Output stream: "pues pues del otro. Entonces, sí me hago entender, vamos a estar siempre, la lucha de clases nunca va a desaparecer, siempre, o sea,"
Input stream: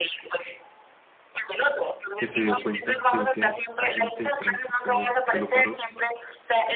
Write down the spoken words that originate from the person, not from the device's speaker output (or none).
que se dio cuenta que ese agente de tránsito que lo paró